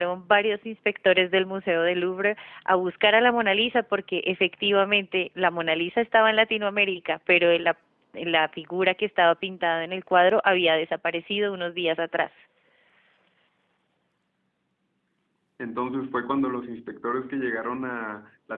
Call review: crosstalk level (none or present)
none